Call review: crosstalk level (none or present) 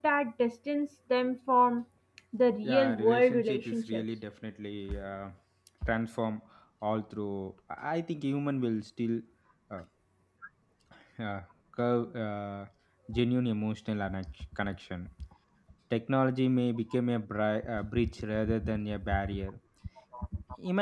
present